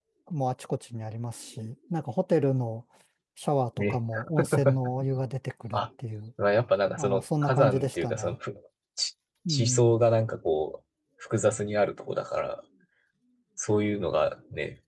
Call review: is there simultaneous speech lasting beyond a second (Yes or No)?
Yes